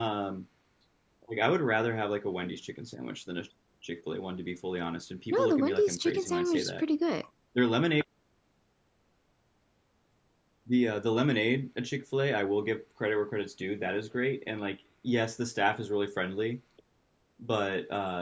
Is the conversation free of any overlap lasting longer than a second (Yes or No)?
No